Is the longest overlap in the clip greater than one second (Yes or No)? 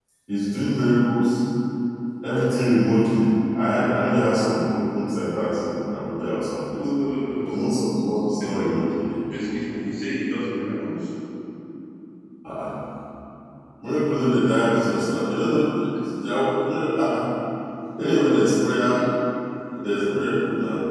No